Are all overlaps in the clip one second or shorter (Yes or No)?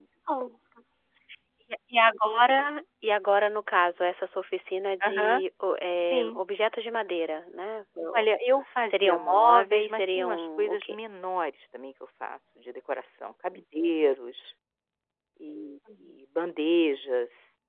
No